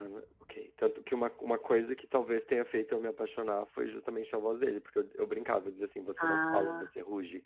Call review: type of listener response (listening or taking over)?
listening